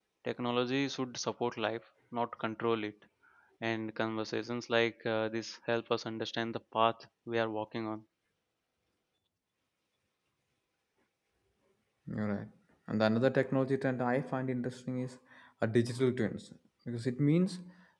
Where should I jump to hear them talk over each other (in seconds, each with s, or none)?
none